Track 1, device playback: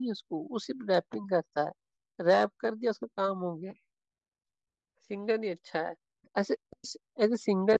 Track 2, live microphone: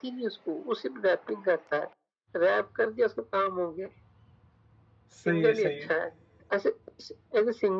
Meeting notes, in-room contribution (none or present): present